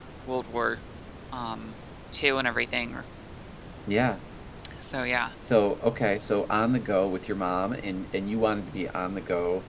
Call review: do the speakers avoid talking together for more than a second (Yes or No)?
Yes